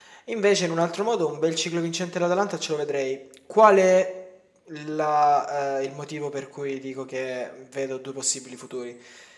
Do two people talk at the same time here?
No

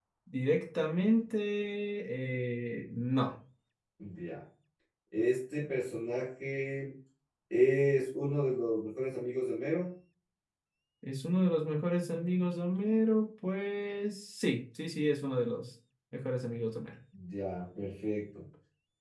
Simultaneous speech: No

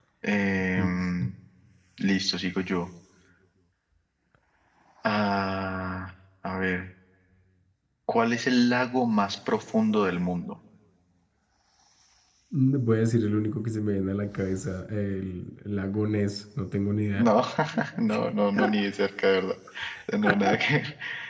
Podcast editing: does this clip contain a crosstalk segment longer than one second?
No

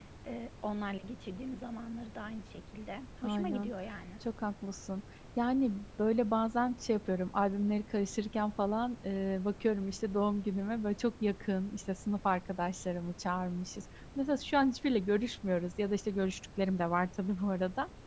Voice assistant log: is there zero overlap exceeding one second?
Yes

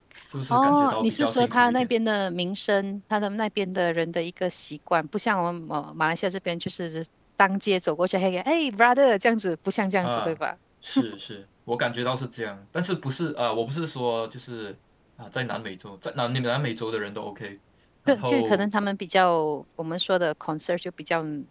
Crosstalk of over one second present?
Yes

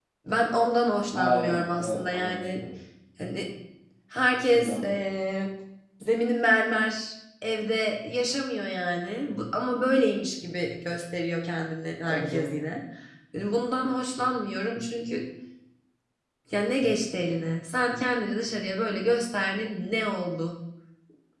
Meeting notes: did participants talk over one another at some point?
Yes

